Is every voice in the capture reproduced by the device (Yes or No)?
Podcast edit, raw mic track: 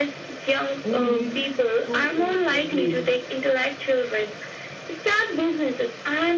No